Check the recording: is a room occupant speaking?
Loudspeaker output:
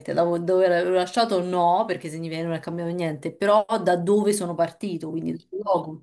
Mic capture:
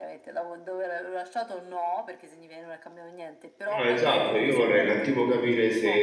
Yes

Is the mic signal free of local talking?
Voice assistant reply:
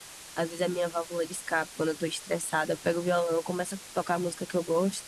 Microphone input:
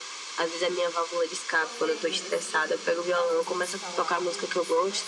No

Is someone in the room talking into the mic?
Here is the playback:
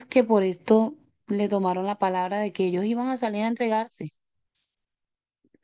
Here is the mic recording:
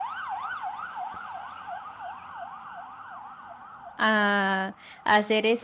Yes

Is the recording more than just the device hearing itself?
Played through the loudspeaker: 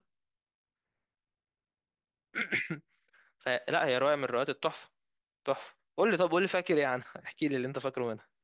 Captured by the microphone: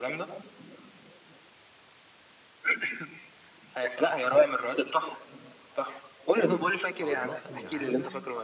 Yes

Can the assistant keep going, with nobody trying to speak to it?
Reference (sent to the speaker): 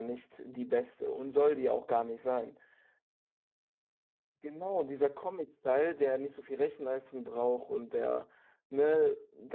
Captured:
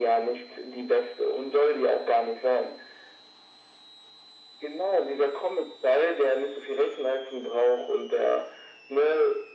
Yes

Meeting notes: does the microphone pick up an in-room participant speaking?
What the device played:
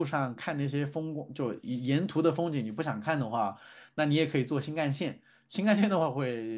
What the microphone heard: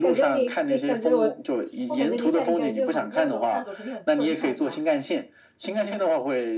Yes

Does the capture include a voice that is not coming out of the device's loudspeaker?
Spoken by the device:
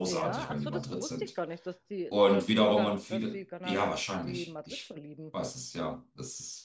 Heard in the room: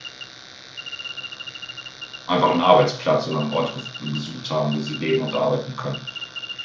Yes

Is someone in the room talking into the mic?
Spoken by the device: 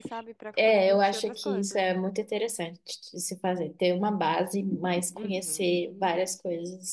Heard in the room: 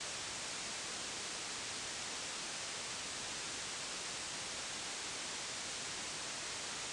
No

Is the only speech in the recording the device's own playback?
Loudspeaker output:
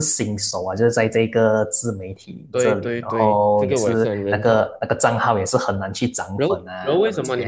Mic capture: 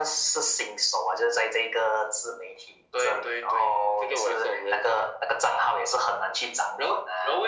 Yes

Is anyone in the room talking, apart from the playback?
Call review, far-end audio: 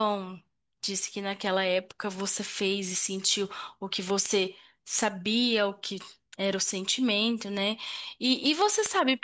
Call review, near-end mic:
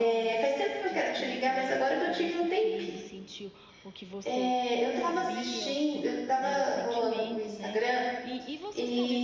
Yes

